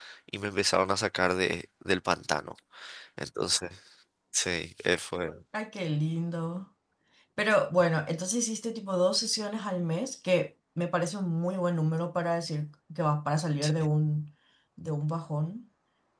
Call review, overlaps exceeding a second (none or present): none